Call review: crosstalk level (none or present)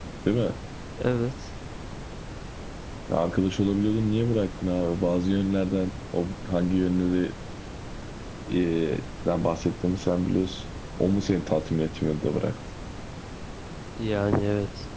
none